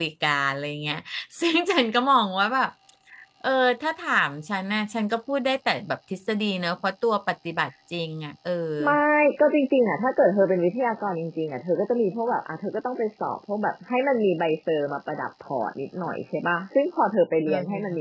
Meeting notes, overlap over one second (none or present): none